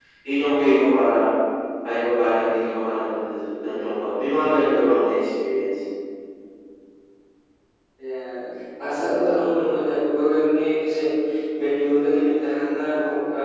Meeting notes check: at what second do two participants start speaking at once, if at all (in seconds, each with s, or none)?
none